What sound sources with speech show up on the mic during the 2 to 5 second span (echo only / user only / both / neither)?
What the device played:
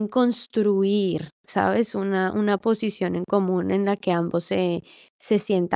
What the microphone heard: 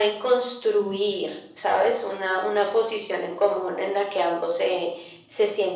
echo only